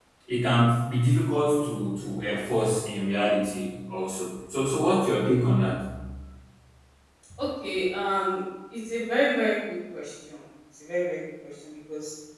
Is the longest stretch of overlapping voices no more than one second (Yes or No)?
Yes